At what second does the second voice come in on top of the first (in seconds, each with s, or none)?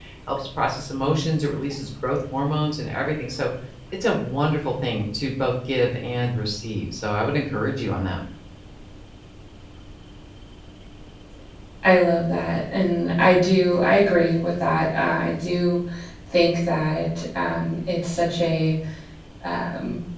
none